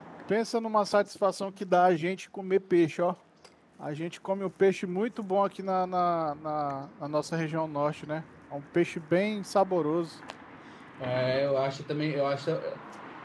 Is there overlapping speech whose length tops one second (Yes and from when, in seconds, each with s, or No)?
No